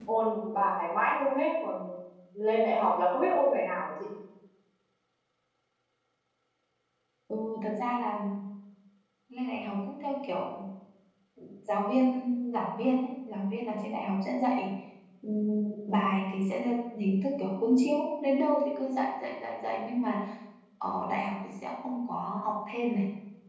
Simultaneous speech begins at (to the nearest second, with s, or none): none